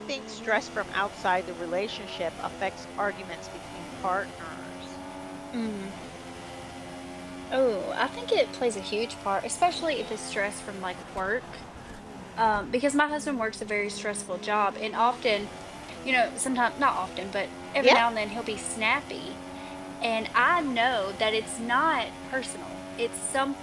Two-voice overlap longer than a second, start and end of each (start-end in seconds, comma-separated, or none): none